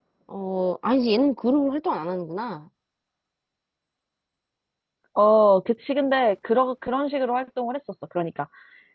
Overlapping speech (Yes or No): No